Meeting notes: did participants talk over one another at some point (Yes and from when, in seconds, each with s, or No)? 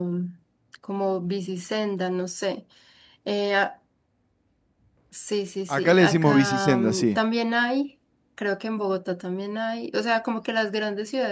Yes, from 5.7 s